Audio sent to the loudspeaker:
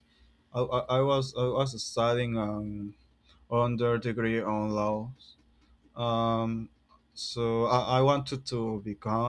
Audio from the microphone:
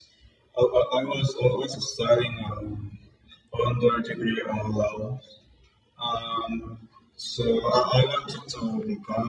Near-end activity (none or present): none